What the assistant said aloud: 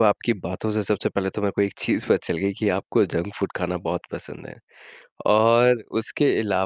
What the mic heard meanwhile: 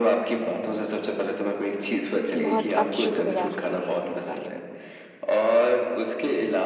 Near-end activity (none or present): present